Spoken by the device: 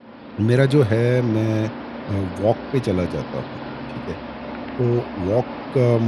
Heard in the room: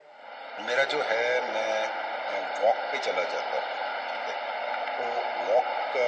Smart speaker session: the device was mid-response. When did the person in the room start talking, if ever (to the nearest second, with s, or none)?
none